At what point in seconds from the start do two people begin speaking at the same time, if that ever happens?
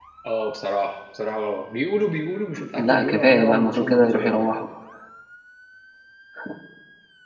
3 s

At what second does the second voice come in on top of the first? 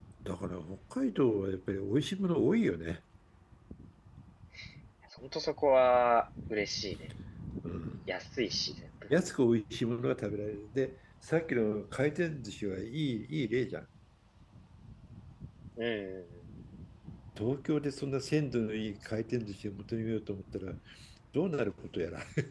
none

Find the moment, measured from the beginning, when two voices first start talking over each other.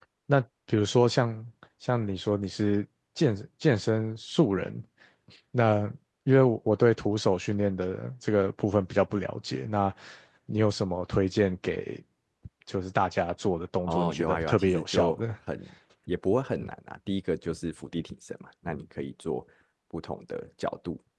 14 s

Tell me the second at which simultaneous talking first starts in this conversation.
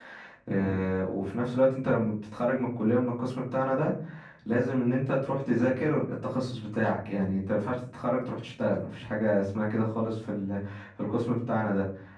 none

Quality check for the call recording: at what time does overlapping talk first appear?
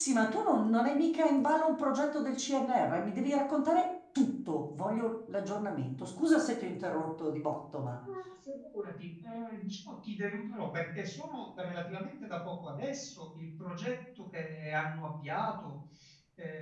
none

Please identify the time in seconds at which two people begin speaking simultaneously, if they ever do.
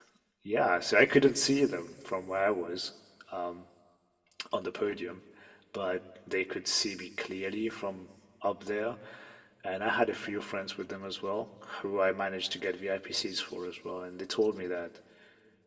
none

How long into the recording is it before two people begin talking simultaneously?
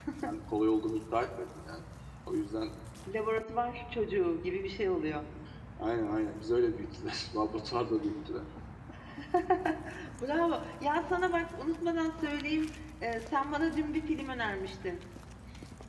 none

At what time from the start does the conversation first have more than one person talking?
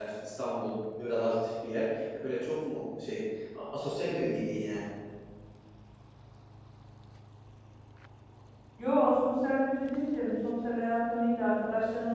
none

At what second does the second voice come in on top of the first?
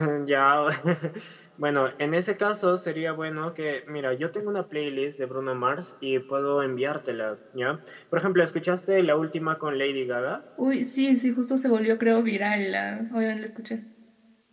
none

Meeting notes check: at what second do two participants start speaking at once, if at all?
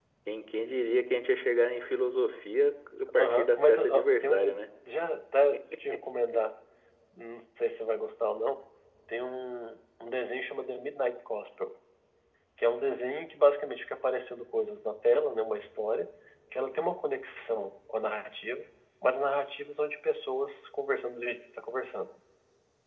3 s

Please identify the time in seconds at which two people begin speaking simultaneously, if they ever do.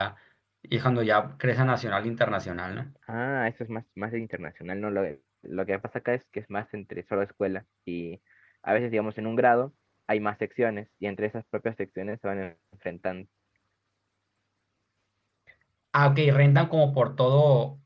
none

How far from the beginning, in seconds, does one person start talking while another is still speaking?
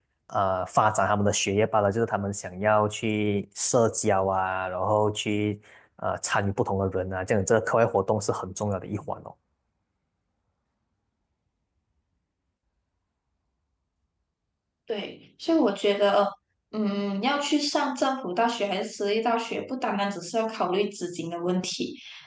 none

